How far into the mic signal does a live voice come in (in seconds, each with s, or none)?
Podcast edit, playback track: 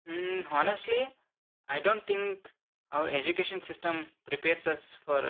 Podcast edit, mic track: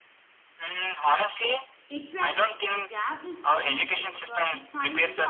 1.9 s